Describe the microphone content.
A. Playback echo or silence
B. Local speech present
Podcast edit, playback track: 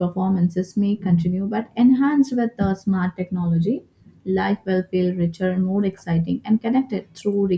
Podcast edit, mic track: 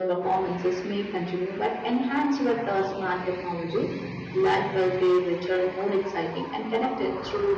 A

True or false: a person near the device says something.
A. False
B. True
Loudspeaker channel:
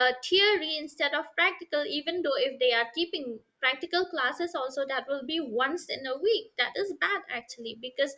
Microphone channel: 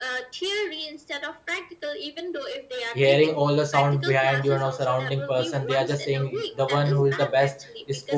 B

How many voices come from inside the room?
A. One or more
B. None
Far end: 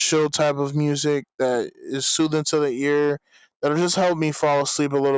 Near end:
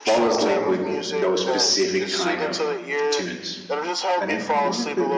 A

